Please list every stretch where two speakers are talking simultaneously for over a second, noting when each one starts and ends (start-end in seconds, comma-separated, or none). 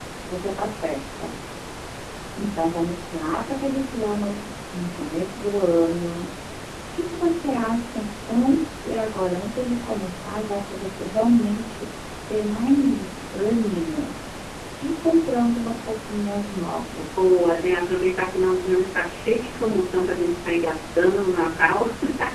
none